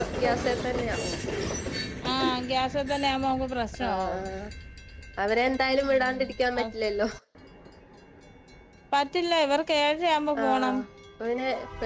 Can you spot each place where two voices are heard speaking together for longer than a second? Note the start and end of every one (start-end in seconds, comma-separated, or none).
none